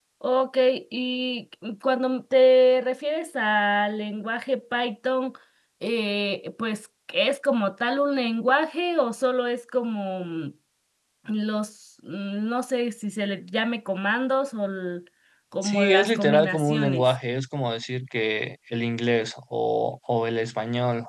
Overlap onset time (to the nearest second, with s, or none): 16 s